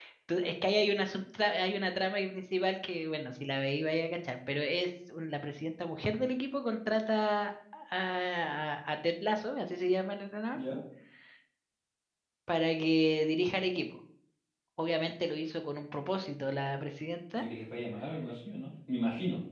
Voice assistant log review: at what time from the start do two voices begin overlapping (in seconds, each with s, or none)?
none